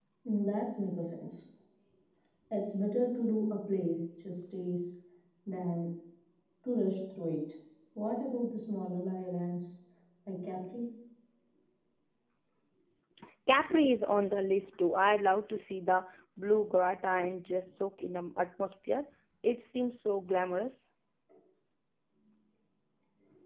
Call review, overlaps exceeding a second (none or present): none